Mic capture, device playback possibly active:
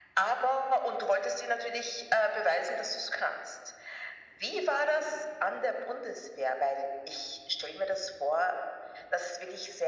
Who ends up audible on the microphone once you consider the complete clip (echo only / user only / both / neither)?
echo only